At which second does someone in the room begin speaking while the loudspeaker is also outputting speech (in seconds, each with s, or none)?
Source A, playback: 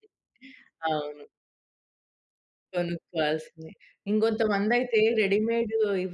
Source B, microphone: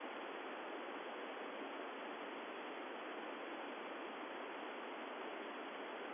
none